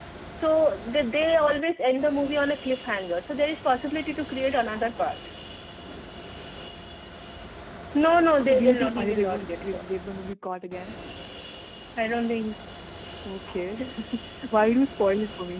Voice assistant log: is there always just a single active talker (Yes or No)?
No